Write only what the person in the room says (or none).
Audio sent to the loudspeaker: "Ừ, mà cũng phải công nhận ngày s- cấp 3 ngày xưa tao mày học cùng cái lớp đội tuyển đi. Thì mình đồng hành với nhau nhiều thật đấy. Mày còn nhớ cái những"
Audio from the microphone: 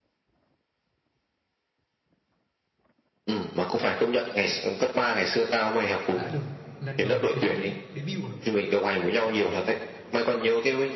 đã được lần đầu debut debut à?